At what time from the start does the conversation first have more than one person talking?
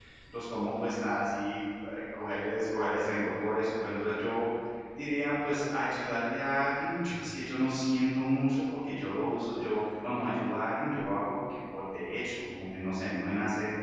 none

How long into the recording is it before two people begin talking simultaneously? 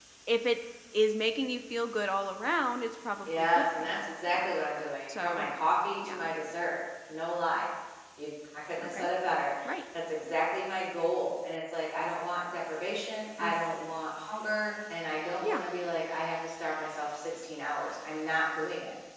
3.2 s

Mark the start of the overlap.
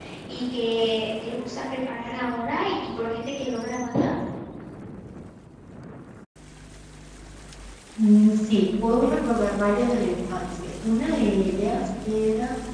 none

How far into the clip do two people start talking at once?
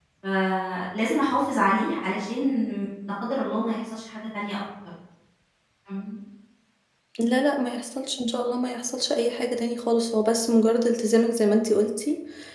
none

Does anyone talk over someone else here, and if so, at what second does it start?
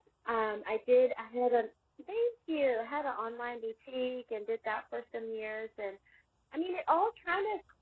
none

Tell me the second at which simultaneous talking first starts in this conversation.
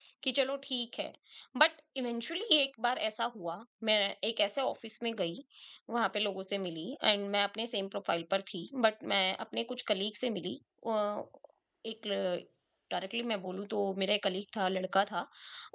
none

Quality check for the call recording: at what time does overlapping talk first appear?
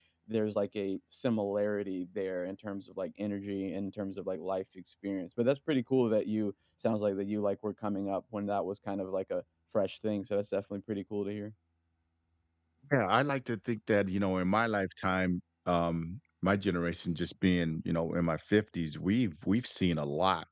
none

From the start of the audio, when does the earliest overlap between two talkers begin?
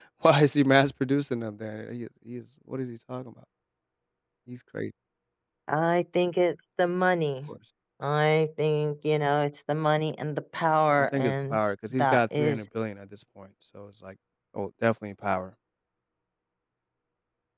11.0 s

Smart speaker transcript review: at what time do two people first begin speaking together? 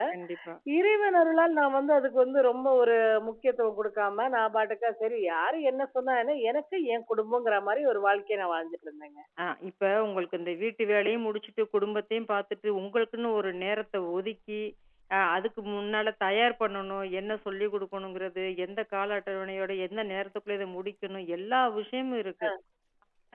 none

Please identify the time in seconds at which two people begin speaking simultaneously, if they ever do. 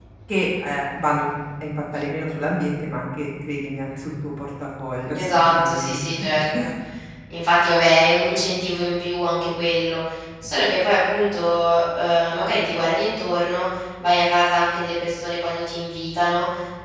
5.1 s

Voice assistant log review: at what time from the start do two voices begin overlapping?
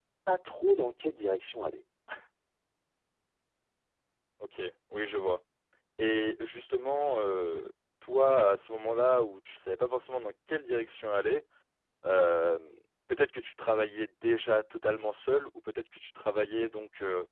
none

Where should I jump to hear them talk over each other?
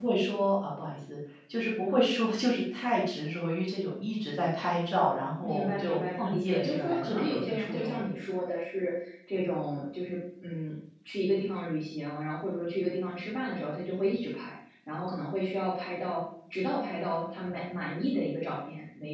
5.4 s

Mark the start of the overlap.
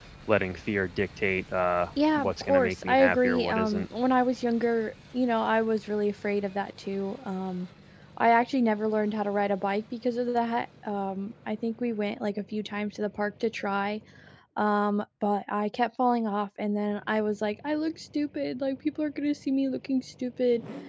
2.0 s

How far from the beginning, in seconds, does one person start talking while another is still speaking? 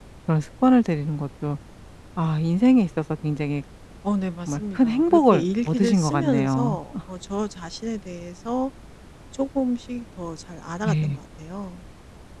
4.5 s

